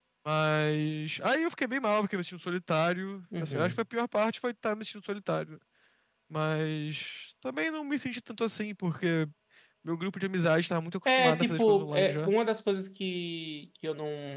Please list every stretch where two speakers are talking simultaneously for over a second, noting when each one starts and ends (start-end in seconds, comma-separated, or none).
11.1-12.3